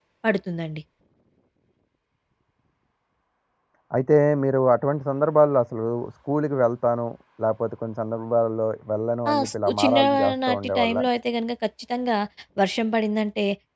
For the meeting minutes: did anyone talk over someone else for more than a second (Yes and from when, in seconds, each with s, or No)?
Yes, from 9.2 s